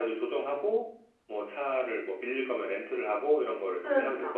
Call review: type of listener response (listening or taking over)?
taking over